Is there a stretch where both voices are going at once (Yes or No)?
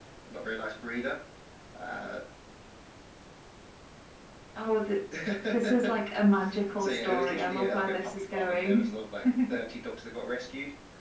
Yes